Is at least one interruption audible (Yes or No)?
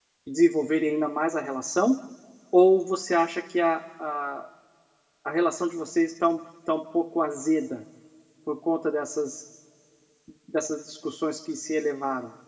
No